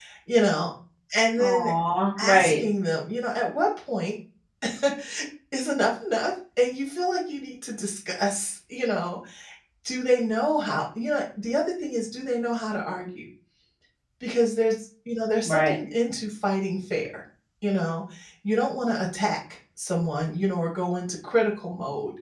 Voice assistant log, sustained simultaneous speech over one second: none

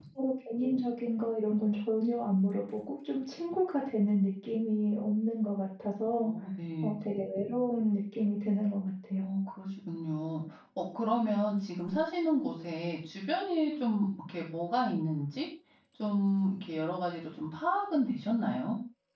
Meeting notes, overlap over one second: none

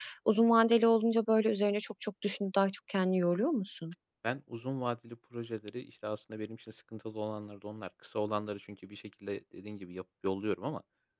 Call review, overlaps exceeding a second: none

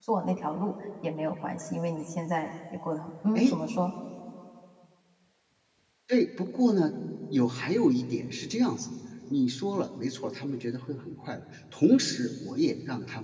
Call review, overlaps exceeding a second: none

